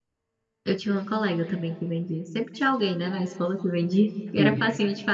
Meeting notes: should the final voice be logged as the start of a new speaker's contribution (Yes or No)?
No